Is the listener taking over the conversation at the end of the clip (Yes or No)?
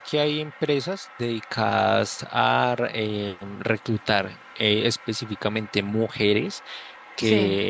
No